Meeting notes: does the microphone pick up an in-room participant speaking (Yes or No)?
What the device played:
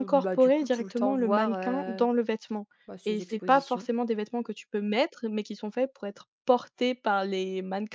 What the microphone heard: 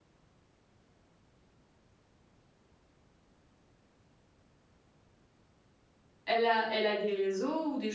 Yes